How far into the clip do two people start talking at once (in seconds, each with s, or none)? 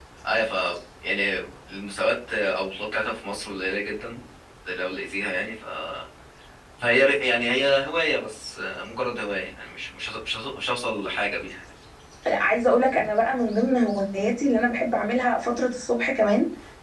none